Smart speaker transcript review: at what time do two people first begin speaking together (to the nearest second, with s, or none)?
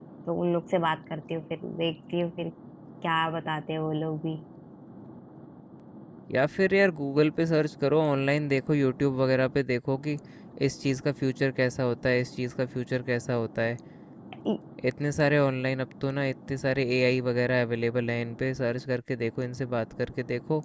none